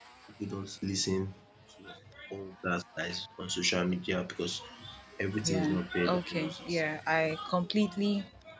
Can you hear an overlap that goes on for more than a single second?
Yes, from 5.4 s

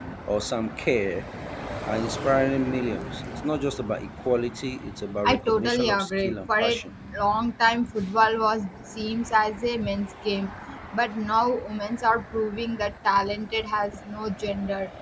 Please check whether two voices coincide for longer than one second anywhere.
Yes, from 5.2 s

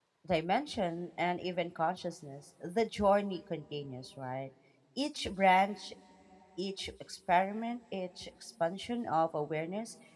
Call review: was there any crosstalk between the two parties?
No

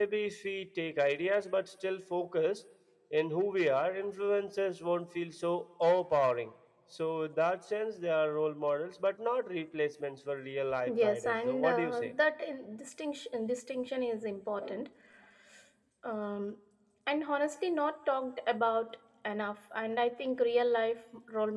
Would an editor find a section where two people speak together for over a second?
Yes, from 10.9 s

